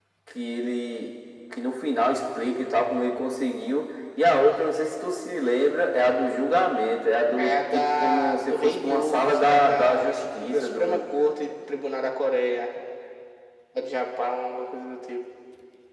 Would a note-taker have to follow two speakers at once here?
Yes, from 7.4 s

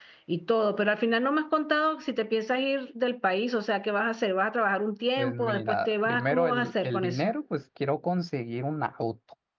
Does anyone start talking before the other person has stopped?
Yes, from 5.2 s

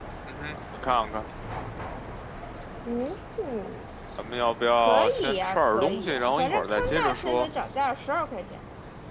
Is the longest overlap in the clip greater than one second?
Yes, from 4.7 s

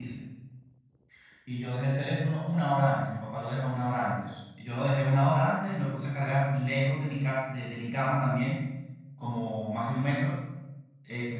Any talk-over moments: No

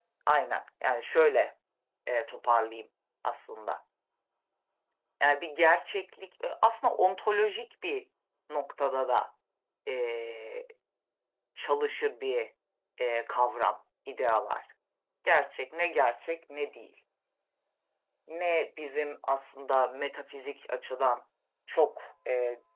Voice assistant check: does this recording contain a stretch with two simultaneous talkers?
No

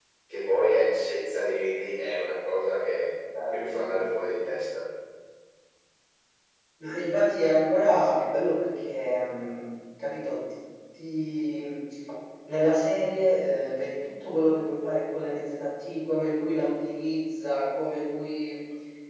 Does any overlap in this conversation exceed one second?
No

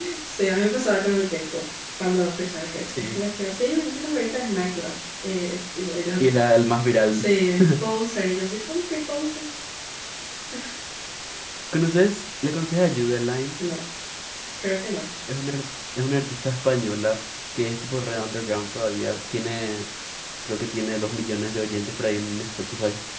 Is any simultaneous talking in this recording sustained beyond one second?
No

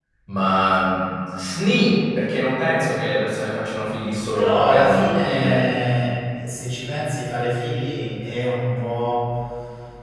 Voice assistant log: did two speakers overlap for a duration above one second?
Yes, from 4.3 s

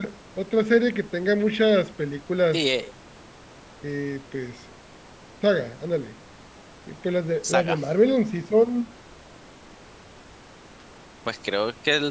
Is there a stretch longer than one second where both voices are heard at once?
No

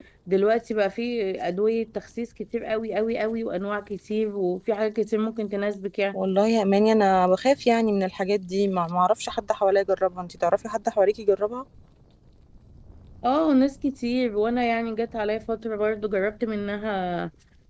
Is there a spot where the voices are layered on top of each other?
No

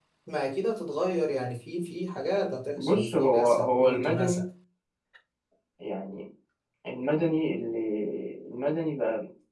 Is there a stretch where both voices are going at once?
Yes, from 2.8 s

